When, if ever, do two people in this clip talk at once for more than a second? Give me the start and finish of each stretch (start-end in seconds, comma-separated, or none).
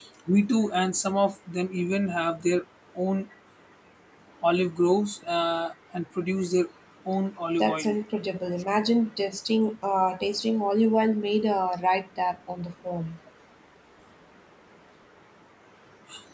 none